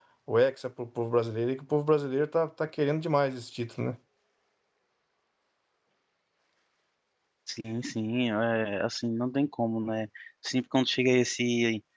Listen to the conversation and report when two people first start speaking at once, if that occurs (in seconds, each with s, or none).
none